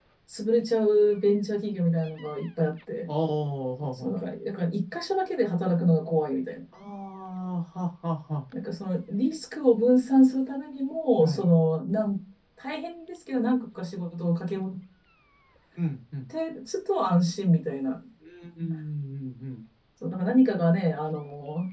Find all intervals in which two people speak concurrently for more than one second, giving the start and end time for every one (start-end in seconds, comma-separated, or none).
none